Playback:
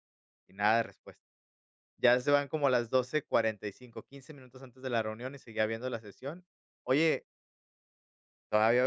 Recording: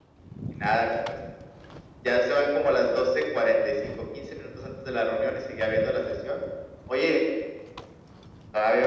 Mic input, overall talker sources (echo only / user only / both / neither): echo only